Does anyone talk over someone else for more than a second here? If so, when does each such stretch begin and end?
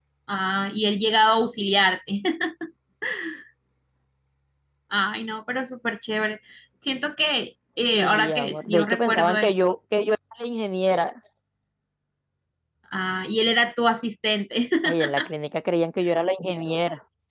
7.9-9.5

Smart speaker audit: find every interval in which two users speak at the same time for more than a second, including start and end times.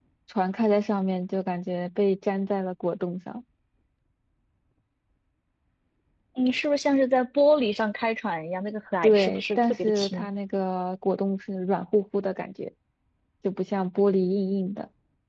9.0-10.3

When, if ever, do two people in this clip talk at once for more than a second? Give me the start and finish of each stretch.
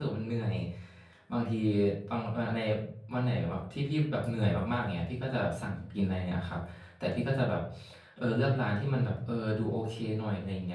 none

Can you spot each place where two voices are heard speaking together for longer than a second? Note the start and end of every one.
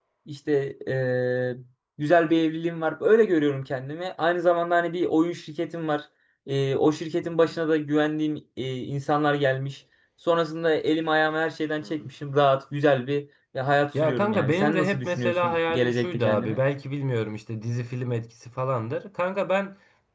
14.0-16.6

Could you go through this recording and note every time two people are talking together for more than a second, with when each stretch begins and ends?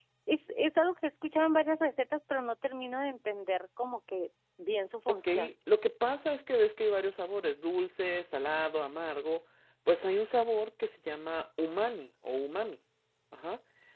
none

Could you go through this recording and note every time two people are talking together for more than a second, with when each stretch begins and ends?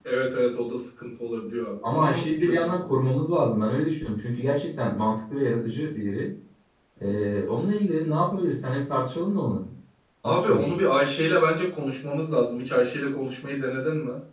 1.8-3.1

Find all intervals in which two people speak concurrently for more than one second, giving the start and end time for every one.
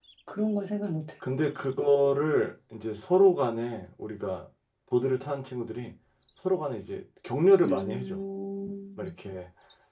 none

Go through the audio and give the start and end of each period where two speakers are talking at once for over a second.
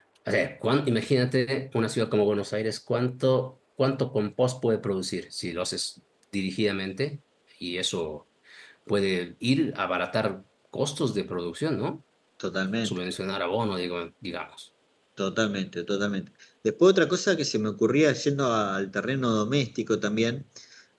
none

